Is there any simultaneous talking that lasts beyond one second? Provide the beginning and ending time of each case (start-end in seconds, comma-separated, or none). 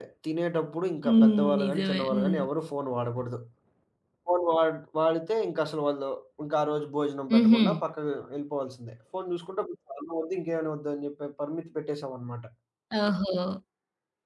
1.1-2.4